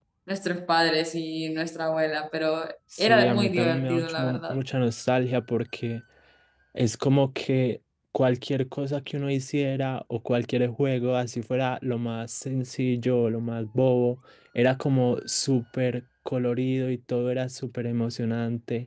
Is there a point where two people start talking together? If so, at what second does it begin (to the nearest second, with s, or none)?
3 s